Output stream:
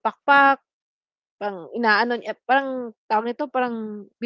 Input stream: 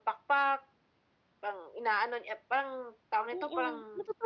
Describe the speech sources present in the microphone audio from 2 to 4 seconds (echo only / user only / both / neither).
both